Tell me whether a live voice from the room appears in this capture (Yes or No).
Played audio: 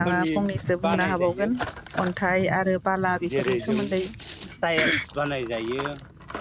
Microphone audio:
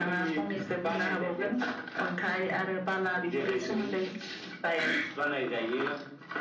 No